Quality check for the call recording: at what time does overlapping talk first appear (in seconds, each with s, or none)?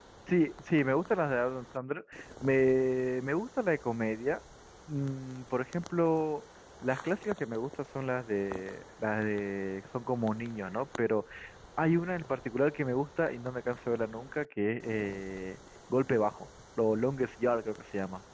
none